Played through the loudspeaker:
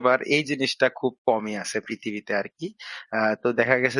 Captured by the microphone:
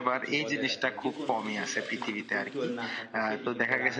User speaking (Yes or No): Yes